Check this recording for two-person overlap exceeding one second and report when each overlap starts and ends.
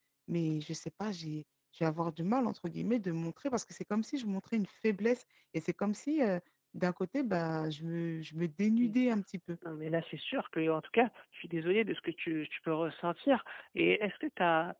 none

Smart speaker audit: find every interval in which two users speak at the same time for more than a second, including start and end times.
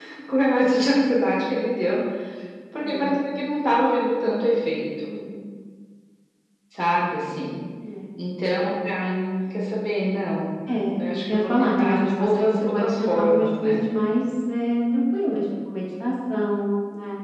10.9-13.8

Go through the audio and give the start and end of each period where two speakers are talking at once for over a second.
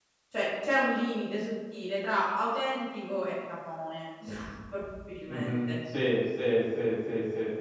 none

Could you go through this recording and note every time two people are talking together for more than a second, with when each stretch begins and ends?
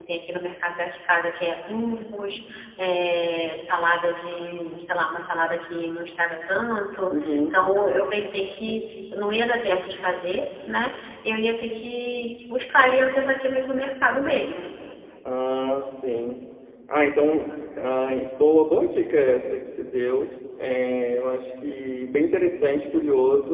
none

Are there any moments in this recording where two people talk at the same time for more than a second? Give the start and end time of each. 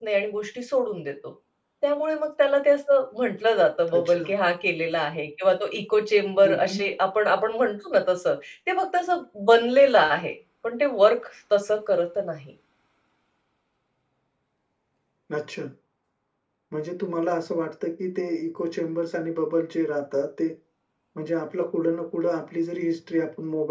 none

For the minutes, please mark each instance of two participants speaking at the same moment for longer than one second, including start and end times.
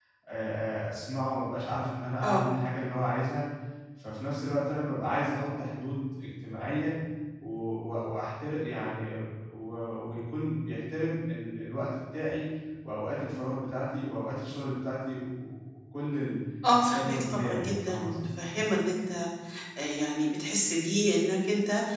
16.8-18.2

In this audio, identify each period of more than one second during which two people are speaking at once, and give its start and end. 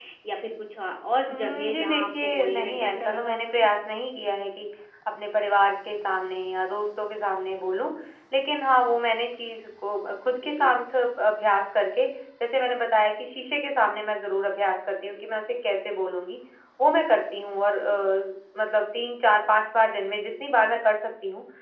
1.3-3.7

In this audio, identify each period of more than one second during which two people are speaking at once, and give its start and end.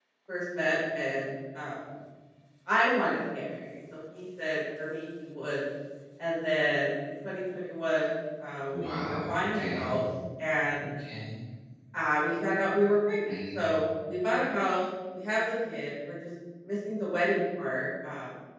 8.7-10.0

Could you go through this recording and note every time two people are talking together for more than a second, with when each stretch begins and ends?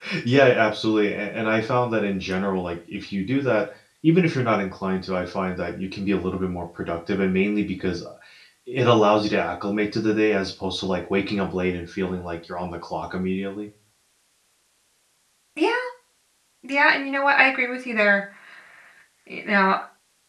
none

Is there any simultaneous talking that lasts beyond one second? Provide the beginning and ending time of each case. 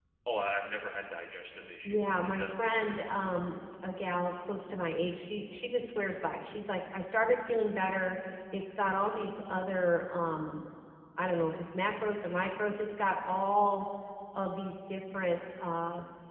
1.8-3.2

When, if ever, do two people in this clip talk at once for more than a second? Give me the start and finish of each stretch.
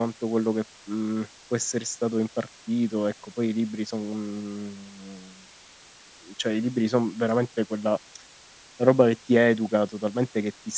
none

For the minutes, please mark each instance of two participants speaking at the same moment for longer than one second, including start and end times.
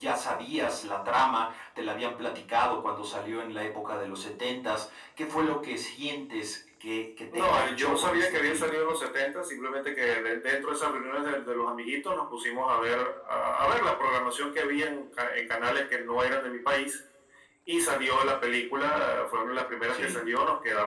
7.3-8.7

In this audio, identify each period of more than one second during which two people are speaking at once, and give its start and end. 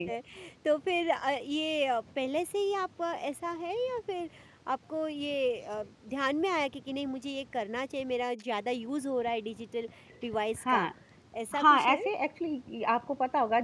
none

